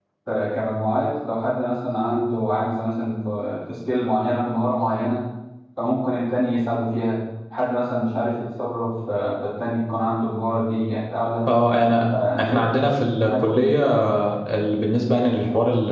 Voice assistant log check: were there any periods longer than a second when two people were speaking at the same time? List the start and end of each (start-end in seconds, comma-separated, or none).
12.4-13.7